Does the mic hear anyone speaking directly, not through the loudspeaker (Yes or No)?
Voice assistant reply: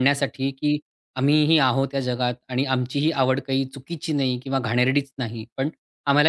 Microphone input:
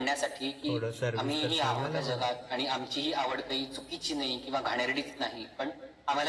Yes